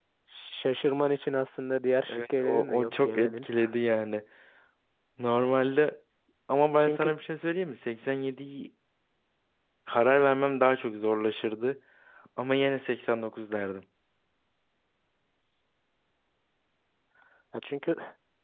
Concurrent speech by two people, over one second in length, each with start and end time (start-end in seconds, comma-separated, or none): 2.1-3.5